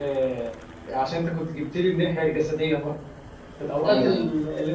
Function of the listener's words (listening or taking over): listening